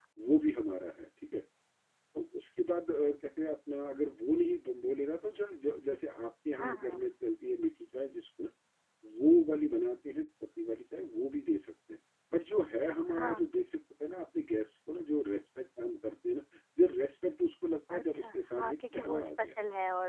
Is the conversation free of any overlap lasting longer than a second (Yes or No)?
No